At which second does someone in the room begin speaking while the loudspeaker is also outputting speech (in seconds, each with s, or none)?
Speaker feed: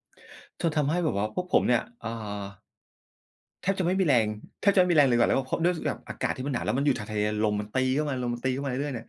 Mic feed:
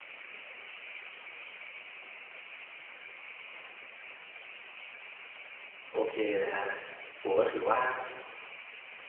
5.9 s